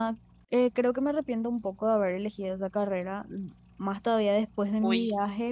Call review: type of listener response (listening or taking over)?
listening